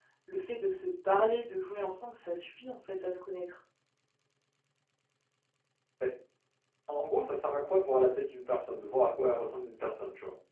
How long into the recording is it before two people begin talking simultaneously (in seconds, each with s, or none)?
none